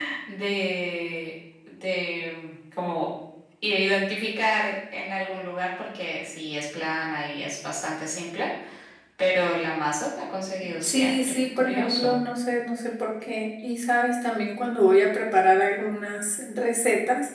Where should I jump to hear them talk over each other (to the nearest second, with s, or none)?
11 s